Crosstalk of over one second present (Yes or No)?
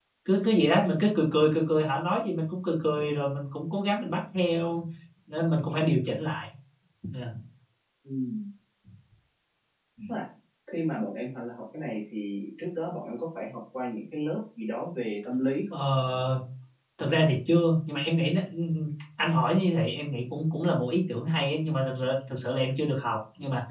No